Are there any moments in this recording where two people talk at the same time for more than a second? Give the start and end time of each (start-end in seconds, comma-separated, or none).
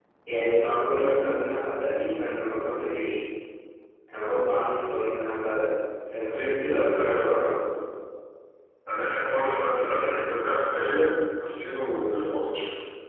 none